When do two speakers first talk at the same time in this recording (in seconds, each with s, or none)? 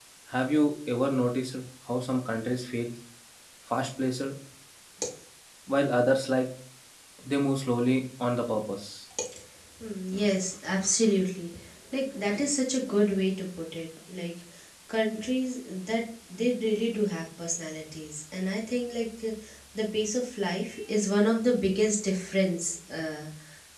none